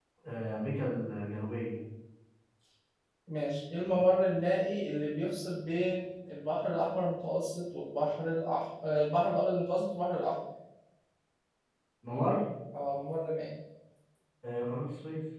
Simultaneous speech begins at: none

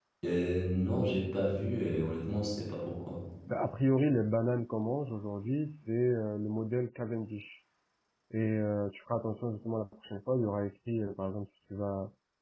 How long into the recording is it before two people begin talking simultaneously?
none

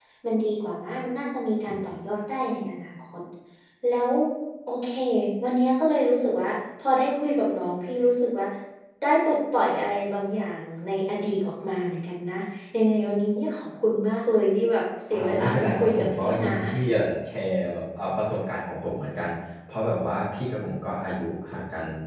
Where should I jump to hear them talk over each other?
15.1 s

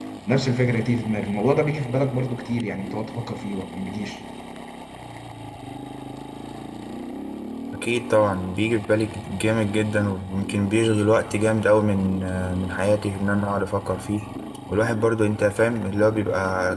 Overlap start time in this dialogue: none

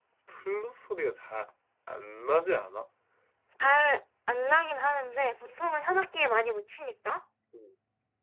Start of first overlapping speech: none

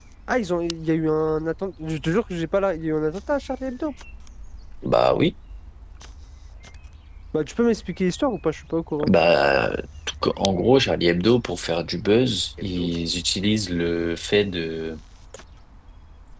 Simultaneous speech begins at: none

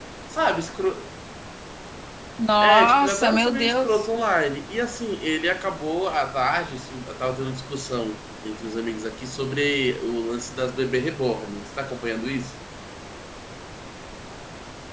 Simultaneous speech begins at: 2.6 s

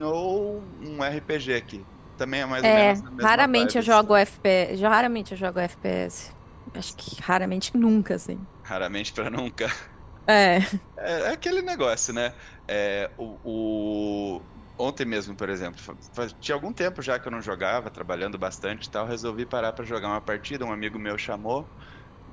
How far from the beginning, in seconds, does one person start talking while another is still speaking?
2.6 s

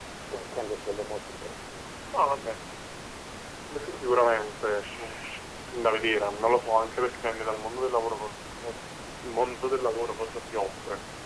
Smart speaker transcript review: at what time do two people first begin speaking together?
none

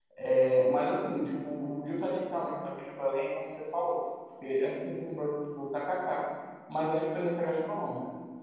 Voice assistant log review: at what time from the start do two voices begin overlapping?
none

